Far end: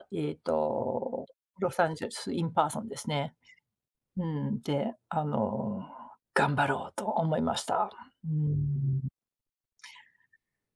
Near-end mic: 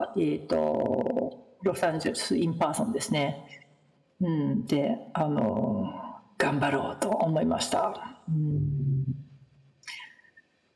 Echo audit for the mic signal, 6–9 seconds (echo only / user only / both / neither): echo only